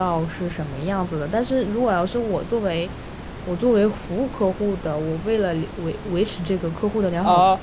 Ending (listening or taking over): taking over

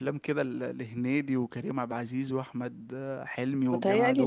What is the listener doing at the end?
taking over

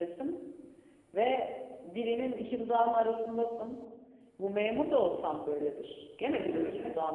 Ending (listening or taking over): listening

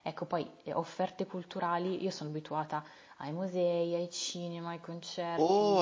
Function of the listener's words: taking over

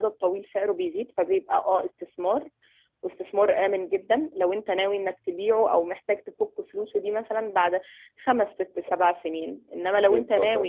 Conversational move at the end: listening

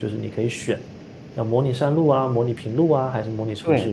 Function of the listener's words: taking over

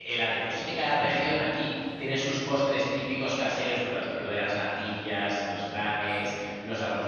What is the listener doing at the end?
listening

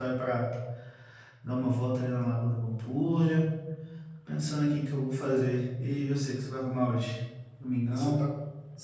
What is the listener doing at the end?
taking over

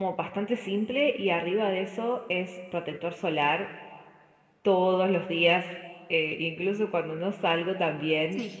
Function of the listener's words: listening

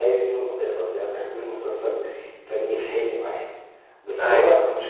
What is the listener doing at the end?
listening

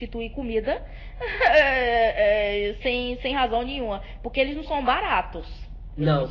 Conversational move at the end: taking over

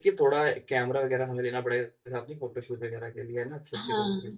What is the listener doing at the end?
taking over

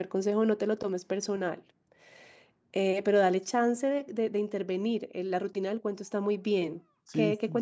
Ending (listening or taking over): taking over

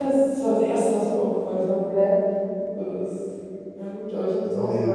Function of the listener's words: taking over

